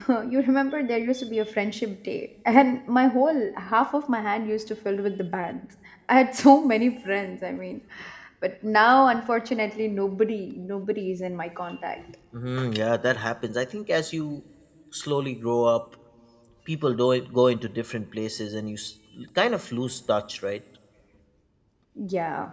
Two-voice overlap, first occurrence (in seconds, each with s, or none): none